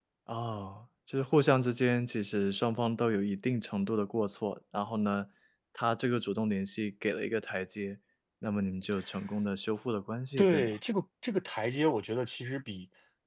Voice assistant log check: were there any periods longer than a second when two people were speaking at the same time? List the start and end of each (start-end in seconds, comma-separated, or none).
none